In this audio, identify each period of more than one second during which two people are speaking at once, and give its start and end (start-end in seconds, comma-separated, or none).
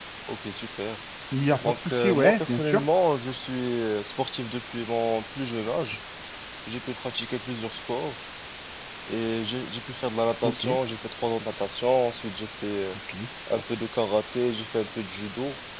1.6-2.8